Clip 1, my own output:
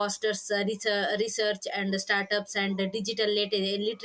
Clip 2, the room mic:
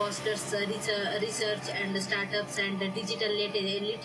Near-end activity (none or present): none